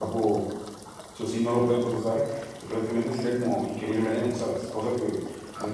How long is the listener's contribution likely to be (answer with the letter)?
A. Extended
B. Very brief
B